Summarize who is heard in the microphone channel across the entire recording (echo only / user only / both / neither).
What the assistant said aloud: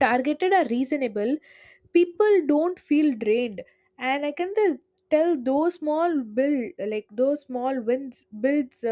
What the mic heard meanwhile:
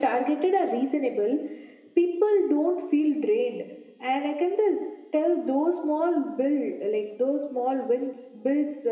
echo only